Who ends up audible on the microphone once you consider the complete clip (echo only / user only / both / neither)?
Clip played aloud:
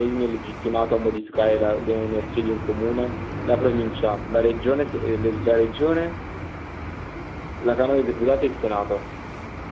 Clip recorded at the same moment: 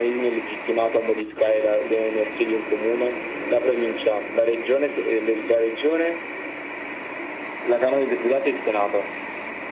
echo only